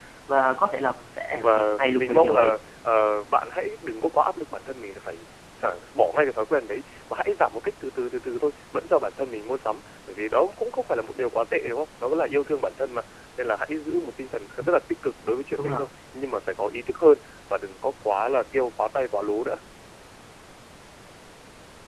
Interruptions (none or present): present